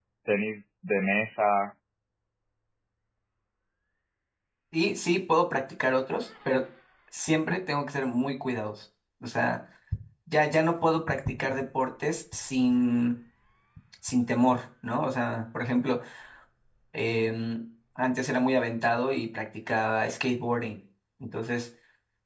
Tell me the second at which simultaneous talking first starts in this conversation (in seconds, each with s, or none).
none